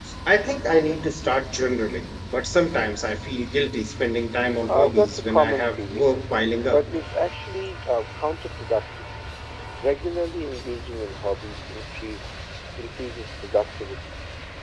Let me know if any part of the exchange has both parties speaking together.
Yes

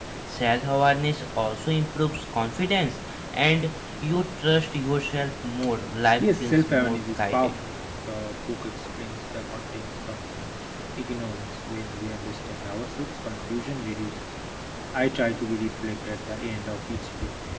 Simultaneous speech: Yes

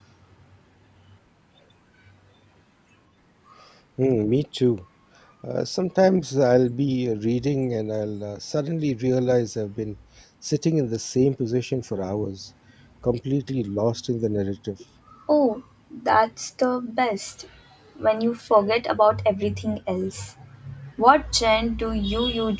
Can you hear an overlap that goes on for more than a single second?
No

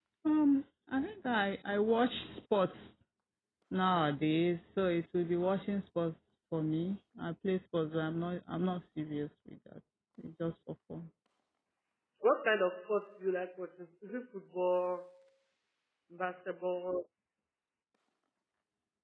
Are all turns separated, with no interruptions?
Yes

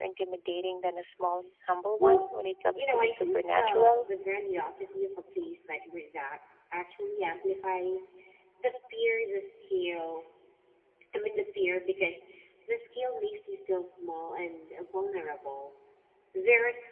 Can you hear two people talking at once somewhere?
Yes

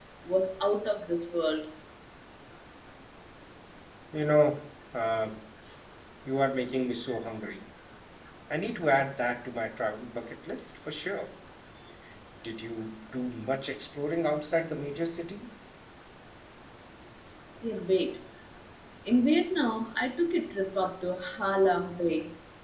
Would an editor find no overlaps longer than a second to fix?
Yes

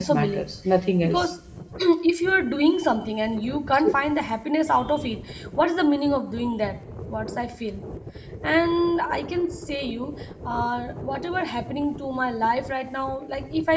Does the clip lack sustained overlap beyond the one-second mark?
Yes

